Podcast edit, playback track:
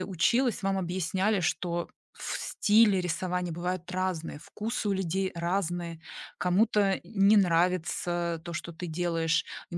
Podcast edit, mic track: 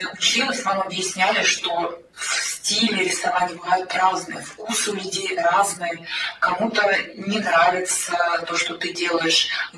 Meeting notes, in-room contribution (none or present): none